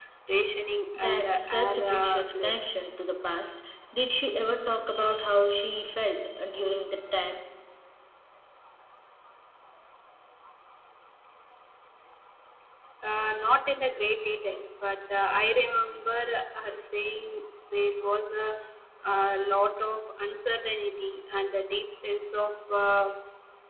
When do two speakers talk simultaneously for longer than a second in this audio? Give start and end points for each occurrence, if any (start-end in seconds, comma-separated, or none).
1.0-2.7